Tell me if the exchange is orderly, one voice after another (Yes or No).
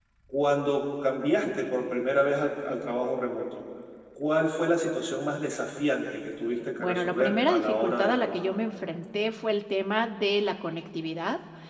No